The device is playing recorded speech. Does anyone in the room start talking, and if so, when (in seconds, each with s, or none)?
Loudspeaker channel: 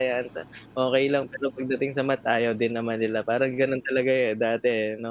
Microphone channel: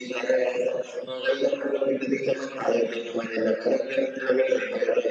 none